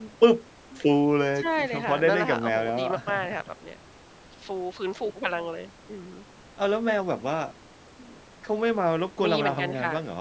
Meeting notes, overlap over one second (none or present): present